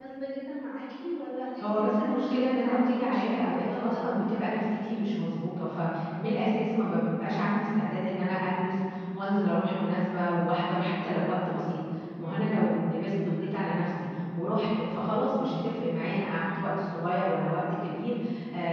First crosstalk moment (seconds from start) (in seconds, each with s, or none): 1.6 s